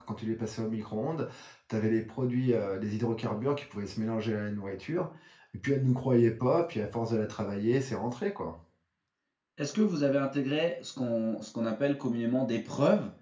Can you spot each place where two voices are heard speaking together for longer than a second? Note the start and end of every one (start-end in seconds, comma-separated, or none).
none